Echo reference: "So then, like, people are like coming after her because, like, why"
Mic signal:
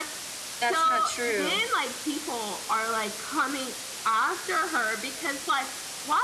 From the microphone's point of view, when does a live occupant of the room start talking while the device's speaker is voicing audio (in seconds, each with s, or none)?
0.6 s